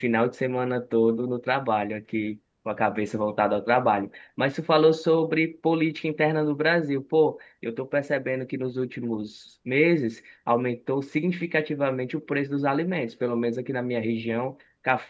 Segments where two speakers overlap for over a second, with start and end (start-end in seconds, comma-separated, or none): none